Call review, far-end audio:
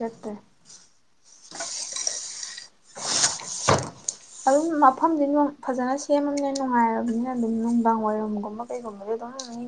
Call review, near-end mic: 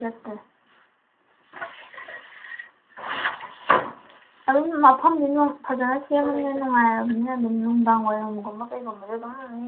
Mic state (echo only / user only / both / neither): both